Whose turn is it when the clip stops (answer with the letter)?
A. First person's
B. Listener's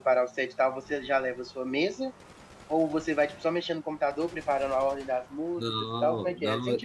B